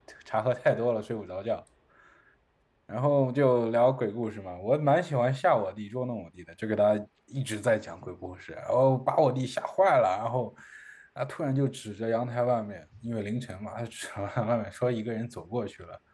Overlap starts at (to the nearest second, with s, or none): none